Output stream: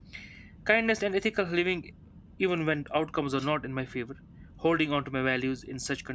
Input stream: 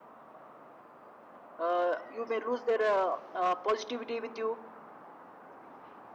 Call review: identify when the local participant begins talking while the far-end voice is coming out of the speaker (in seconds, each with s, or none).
1.6 s